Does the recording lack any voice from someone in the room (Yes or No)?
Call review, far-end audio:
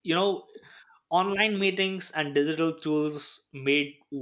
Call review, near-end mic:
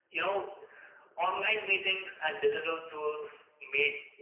Yes